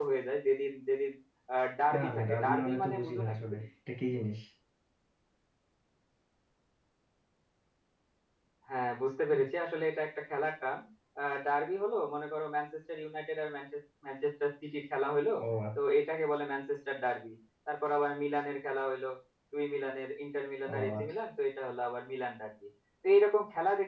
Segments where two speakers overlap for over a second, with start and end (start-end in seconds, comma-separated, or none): 1.9-3.6